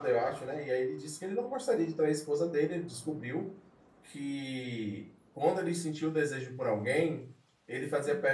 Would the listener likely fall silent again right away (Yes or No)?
Yes